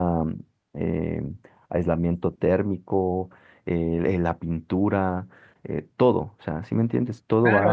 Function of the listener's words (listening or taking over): taking over